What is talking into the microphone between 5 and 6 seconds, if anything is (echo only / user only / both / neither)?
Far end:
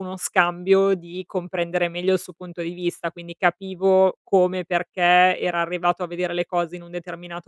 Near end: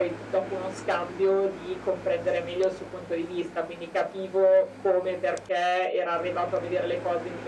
echo only